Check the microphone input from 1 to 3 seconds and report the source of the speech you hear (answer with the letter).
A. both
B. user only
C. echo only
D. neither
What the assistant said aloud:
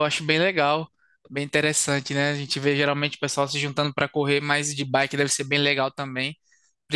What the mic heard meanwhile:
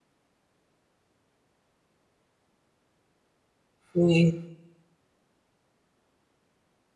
D